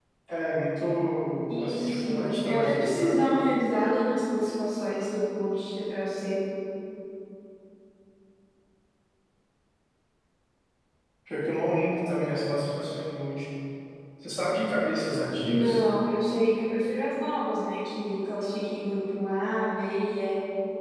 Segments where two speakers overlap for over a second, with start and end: 1.6-3.2

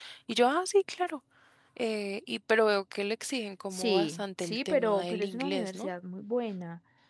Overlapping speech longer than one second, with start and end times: 3.7-5.9

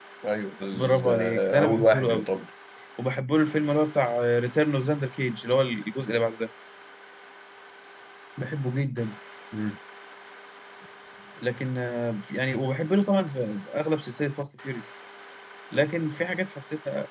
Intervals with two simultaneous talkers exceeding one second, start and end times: 0.7-2.3

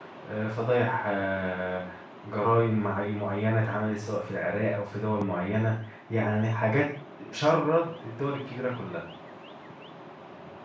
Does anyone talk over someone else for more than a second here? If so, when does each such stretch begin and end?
none

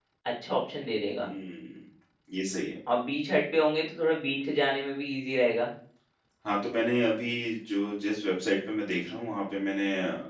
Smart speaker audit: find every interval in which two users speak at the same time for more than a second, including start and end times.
none

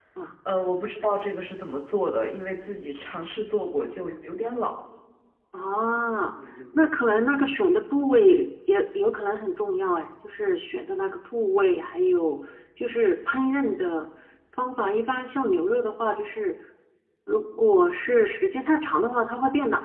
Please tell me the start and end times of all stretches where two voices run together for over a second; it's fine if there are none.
none

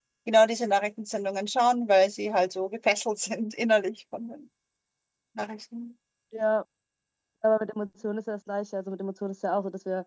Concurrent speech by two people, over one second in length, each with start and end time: none

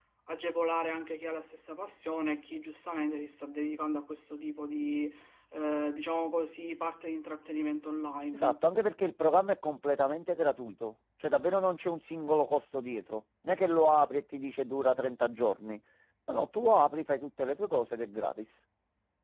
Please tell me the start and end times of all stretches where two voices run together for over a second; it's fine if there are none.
none

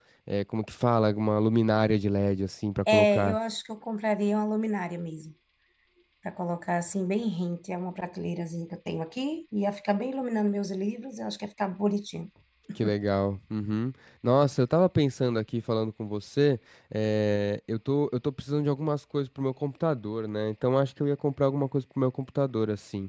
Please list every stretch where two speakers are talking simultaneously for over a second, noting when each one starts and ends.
none

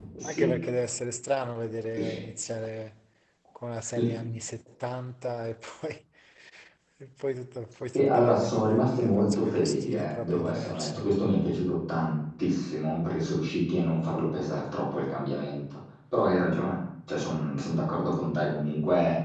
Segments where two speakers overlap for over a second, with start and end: 8.0-11.2

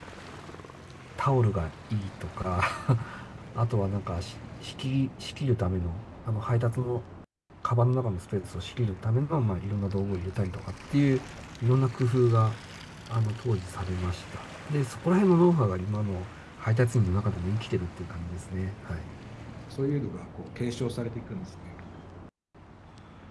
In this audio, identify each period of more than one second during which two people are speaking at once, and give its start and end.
none

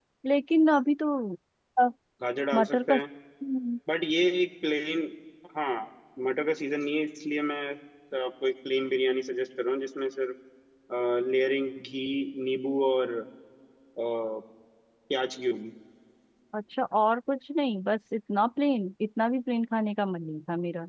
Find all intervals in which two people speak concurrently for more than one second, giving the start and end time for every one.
none

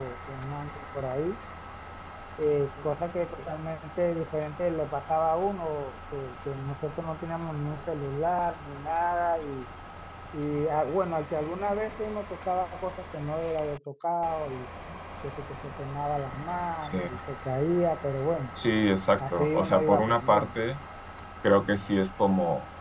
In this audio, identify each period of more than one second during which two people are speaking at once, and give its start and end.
19.2-20.6

